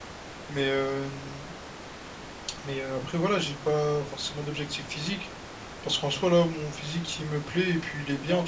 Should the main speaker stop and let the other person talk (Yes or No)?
Yes